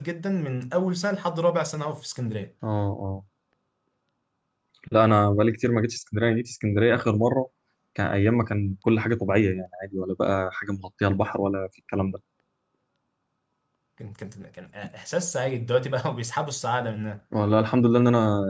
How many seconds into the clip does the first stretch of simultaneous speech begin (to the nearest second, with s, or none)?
none